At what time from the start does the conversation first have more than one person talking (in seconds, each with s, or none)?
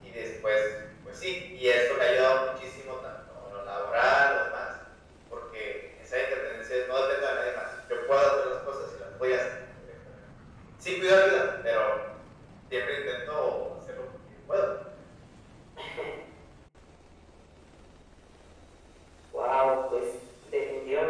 none